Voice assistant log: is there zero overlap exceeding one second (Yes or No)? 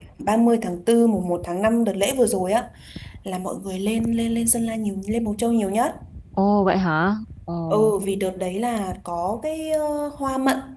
Yes